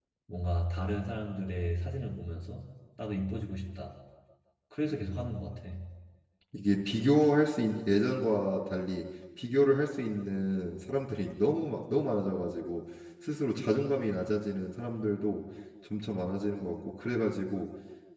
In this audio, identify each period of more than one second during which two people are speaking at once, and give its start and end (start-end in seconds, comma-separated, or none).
none